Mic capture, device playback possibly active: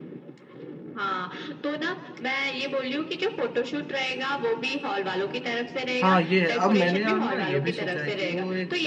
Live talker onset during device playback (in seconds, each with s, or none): 6.0 s